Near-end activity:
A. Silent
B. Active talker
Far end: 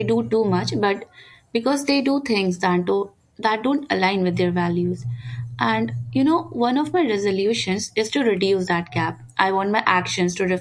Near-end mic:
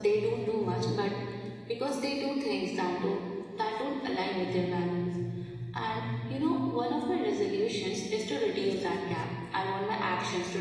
A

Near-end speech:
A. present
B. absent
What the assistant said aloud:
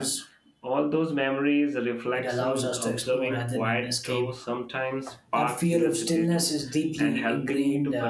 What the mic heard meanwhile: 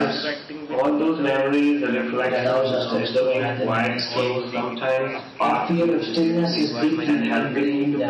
A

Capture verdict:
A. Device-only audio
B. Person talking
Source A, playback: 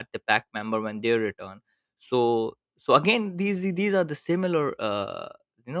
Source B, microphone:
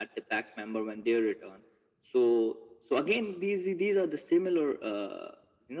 A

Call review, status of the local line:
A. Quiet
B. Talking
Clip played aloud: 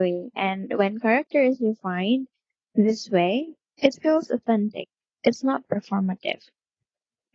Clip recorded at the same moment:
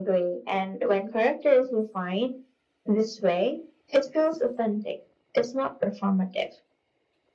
A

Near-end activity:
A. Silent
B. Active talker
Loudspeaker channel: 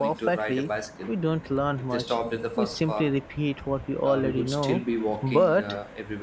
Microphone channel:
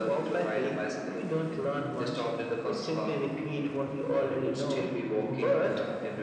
A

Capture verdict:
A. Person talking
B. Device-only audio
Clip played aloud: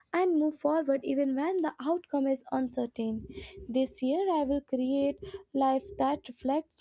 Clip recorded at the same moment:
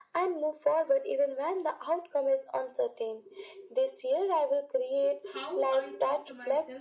A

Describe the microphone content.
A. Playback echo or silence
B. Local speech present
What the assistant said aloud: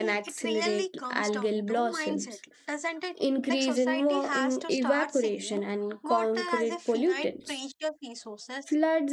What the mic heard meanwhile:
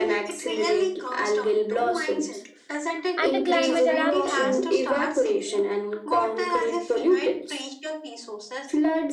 B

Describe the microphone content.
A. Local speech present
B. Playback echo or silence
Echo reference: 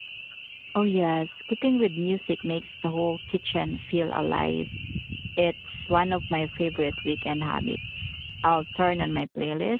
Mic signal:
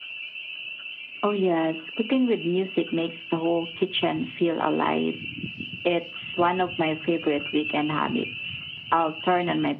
B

